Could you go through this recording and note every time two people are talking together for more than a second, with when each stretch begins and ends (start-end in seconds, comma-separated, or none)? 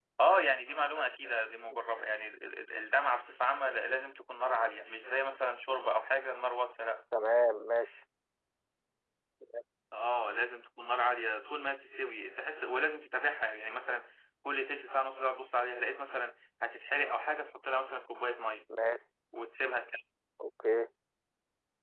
none